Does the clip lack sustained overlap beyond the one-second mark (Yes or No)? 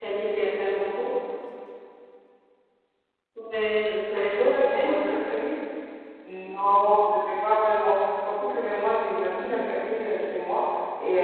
No